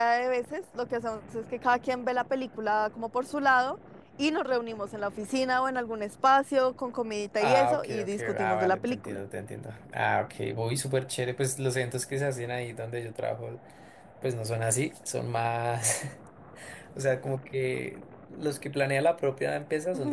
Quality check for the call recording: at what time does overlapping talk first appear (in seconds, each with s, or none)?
7.4 s